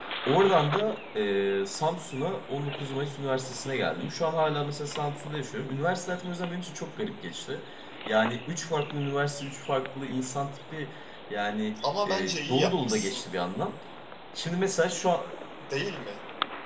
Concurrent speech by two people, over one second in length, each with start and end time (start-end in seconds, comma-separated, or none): 11.8-13.2